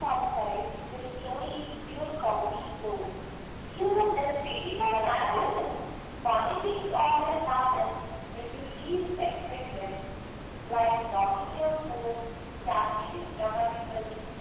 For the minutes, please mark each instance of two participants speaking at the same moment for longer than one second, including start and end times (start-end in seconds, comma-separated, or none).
4.2-5.6